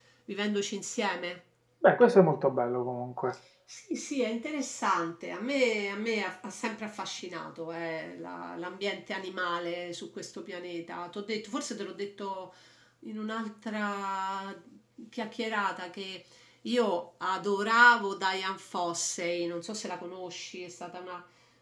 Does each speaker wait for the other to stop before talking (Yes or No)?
Yes